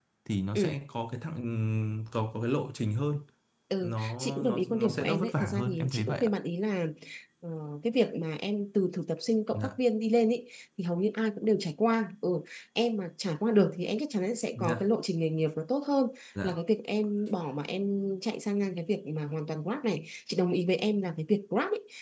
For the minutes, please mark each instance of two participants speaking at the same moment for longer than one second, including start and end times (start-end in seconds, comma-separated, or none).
3.8-6.3